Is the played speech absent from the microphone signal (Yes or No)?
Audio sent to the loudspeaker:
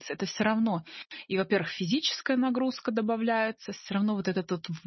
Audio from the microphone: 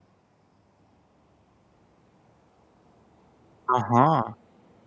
Yes